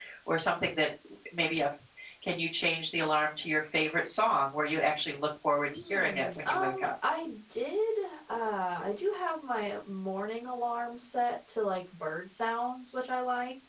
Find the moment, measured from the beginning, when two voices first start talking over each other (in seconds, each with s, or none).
5.6 s